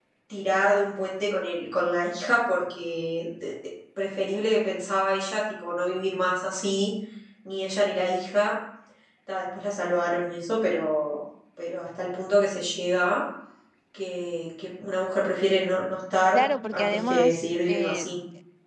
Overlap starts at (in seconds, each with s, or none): 16.3 s